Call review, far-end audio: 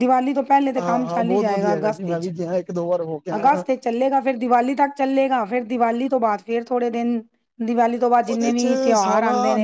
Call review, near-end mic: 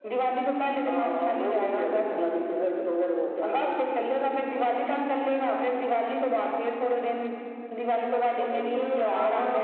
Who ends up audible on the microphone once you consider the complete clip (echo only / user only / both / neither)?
echo only